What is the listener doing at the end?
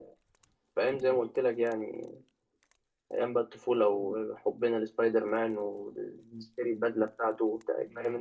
taking over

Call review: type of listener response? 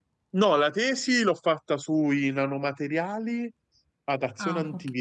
listening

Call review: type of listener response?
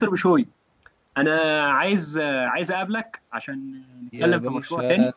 taking over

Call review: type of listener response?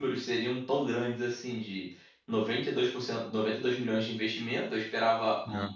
listening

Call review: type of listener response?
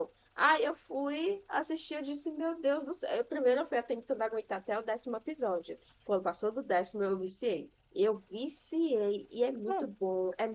listening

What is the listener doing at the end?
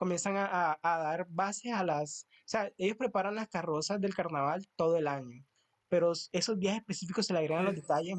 listening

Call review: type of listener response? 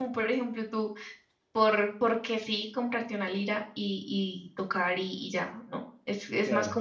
listening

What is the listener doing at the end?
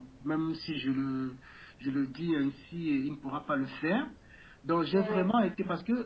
listening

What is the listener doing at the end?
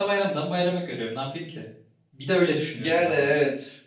taking over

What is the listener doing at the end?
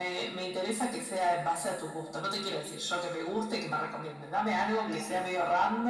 listening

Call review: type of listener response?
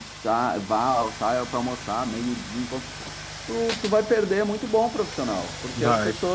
listening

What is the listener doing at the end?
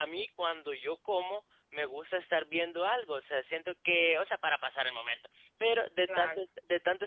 listening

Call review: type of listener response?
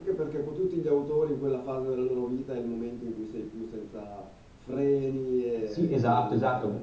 taking over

